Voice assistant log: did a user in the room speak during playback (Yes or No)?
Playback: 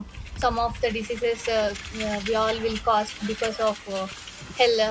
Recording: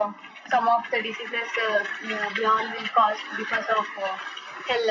No